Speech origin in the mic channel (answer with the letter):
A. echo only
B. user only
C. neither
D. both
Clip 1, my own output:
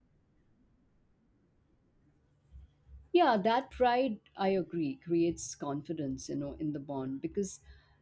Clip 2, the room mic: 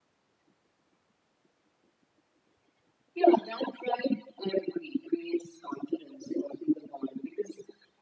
A